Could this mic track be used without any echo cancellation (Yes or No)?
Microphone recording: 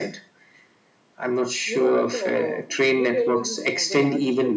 No